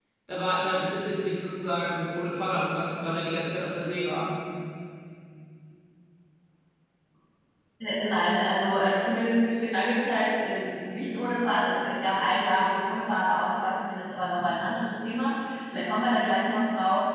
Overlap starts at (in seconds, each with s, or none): none